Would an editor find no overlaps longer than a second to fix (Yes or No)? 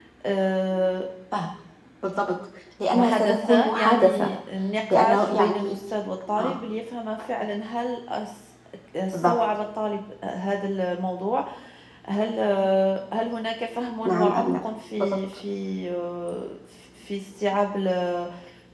No